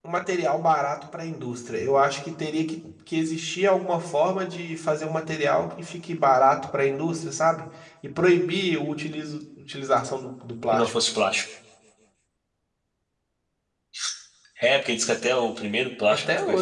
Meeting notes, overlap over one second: none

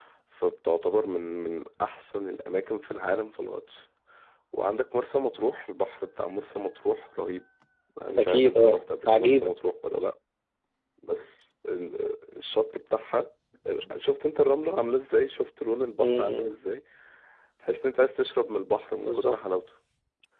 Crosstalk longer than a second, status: present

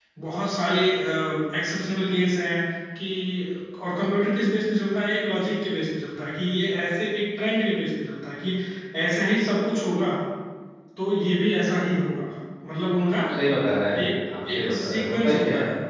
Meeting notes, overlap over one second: present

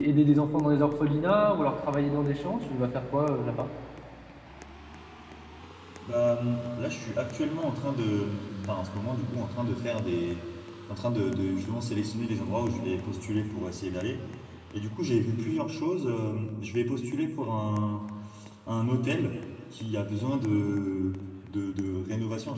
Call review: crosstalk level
none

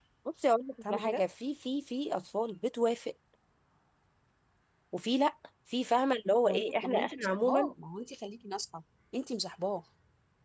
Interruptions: present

